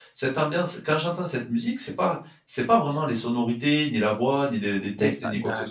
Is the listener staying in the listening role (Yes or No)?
No